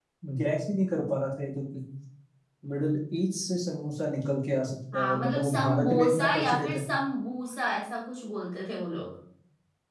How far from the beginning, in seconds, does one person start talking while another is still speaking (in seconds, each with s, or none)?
4.9 s